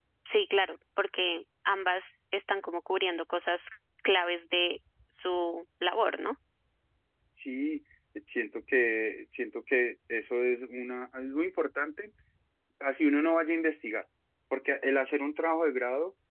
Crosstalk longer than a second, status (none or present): none